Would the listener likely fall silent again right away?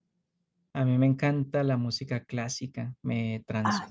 Yes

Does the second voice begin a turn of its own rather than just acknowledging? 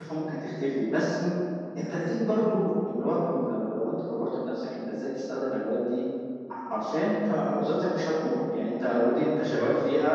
No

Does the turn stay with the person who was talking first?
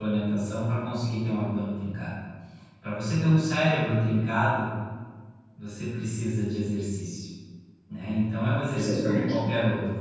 Yes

